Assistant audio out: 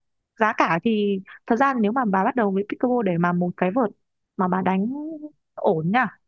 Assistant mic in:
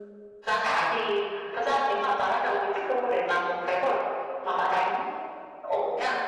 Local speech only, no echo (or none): none